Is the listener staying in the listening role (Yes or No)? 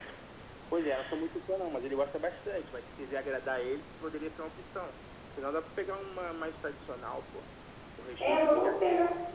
No